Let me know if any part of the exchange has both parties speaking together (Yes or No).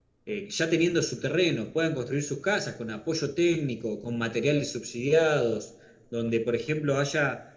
No